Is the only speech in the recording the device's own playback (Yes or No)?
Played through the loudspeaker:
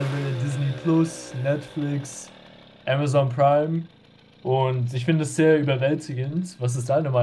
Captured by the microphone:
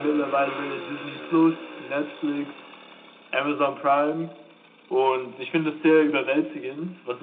Yes